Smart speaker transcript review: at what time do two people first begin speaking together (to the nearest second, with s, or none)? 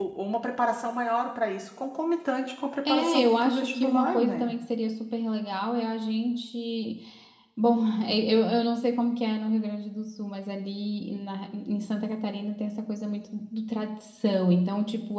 3 s